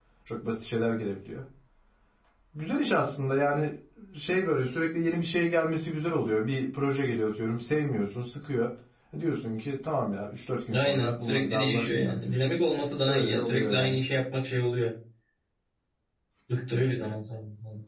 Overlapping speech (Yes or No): Yes